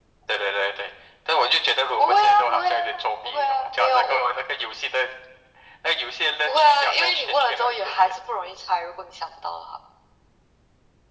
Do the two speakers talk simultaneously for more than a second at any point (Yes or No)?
Yes